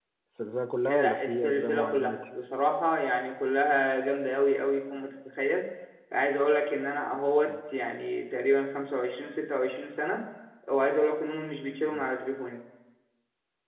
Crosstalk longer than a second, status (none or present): present